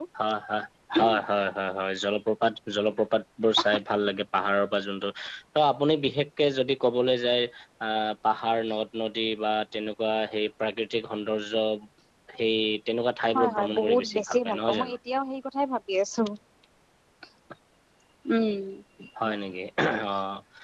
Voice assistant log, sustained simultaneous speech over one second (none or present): present